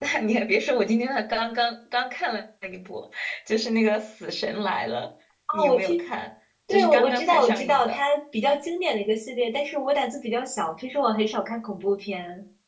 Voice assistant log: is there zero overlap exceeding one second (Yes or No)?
No